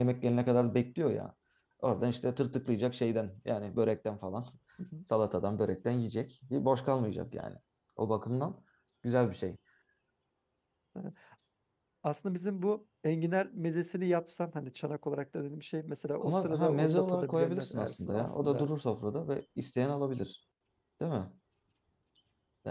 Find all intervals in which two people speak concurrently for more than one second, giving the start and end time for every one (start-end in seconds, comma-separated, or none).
16.2-18.7